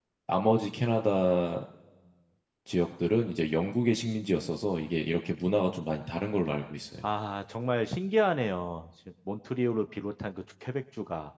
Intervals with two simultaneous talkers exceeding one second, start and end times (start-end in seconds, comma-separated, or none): none